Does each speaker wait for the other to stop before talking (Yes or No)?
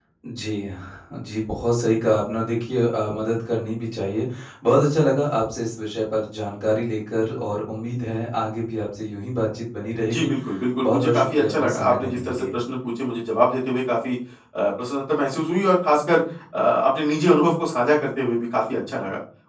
No